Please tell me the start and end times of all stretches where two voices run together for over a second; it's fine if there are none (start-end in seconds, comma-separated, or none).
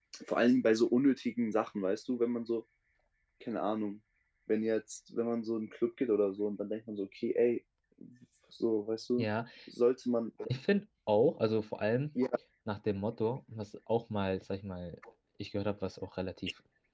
none